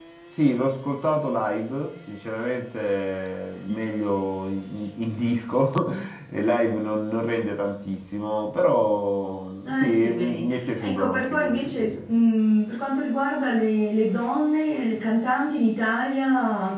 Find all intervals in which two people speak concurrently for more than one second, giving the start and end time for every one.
9.6-12.0

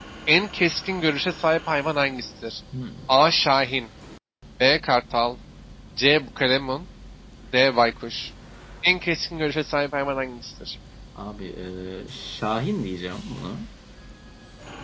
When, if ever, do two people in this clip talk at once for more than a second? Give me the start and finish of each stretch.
none

